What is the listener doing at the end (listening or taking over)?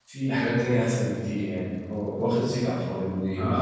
taking over